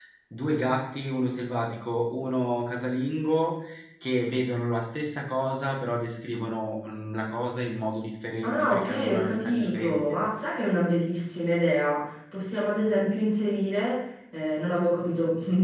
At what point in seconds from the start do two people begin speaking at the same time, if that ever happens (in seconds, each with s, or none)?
8.4 s